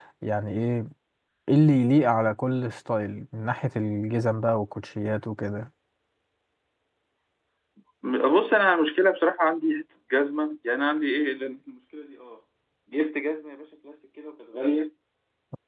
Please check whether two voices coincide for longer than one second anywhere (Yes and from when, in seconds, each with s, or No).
No